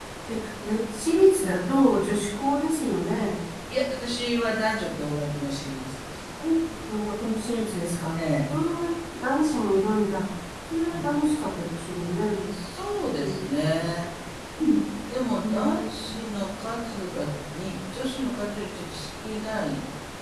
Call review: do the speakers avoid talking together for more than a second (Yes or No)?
Yes